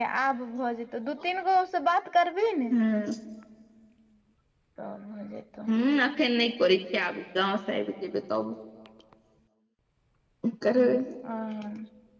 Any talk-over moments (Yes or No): No